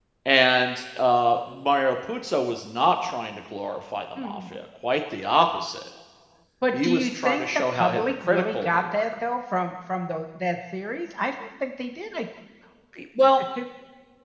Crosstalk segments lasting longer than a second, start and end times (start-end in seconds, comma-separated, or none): 6.7-9.1